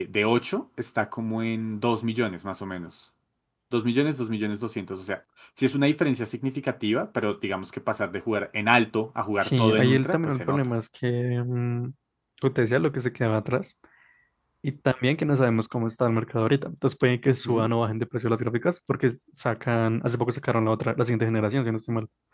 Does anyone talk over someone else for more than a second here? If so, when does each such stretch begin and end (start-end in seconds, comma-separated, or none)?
9.4-10.6